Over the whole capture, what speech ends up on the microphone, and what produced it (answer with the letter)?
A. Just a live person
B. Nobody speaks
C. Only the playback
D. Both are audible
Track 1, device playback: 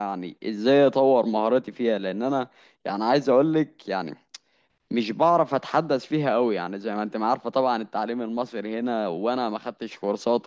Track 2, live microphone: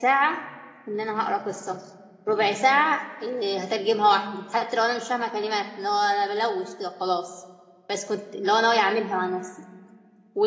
A